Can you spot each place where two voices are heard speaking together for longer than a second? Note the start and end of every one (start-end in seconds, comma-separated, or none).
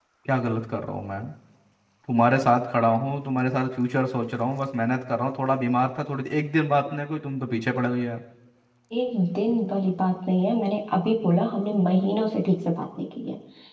none